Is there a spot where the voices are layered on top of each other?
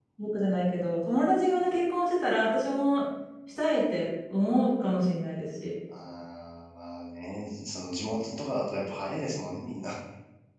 No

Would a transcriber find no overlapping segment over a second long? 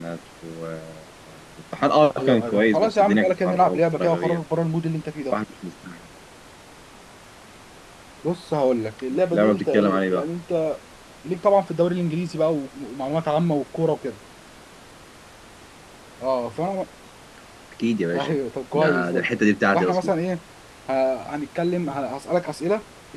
No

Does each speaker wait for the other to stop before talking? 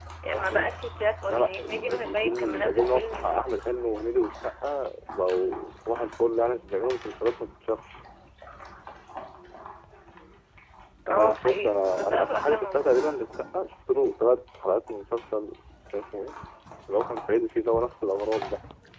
No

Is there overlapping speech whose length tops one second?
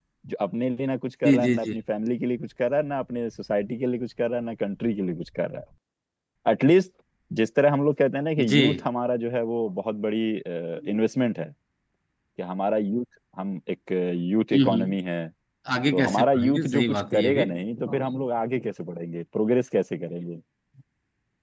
Yes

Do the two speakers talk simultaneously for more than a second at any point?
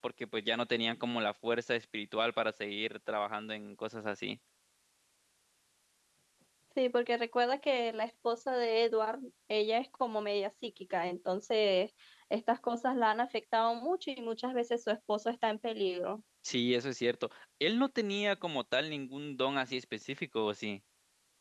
No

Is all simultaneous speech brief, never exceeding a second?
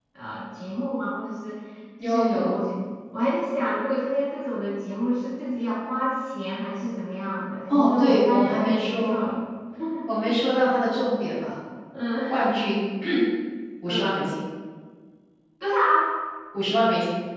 No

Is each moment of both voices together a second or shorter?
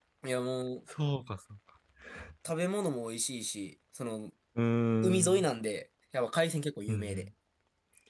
Yes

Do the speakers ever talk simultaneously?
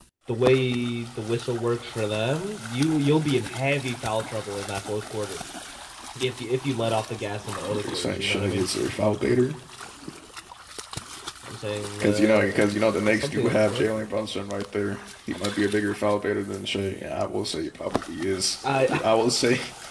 Yes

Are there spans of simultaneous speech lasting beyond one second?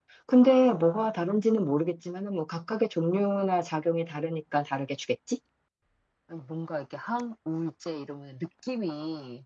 No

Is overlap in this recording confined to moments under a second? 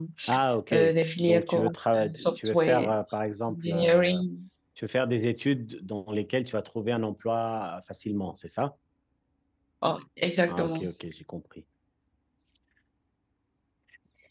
No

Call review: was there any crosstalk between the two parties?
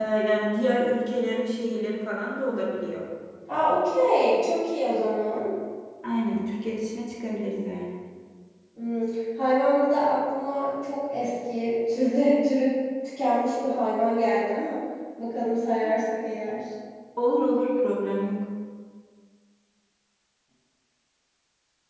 No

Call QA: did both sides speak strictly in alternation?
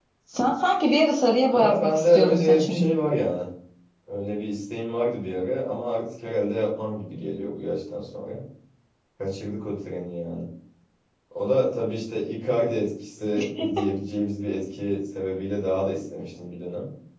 No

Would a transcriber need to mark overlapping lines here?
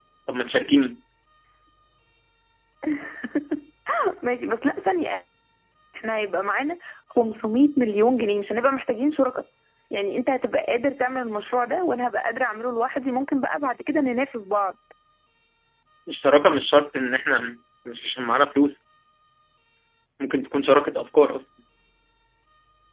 No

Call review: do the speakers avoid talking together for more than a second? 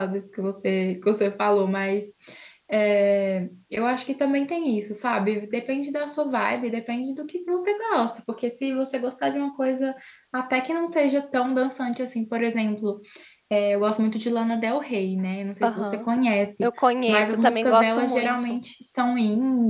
No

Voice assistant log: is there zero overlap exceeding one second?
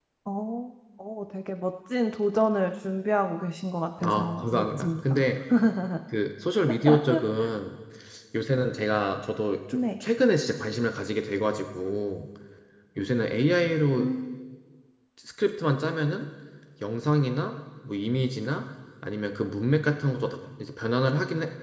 No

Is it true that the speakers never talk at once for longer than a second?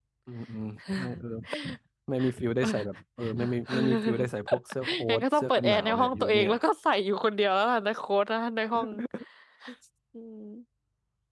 No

